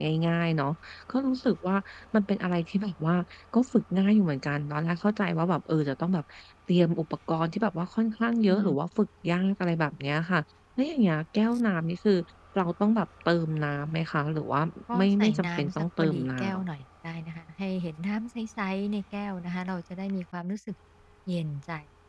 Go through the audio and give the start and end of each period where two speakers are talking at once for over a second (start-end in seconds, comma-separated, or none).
15.0-16.6